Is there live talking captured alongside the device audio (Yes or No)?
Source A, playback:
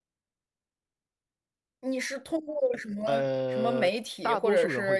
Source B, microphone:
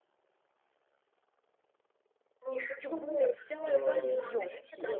Yes